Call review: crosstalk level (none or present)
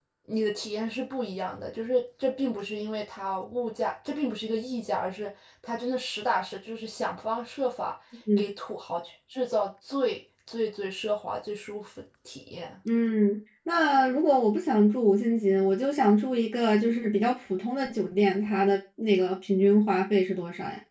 none